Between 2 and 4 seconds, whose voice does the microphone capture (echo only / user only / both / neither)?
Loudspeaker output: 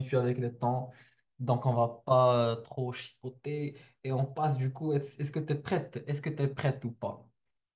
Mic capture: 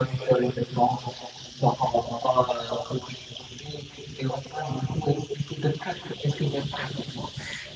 echo only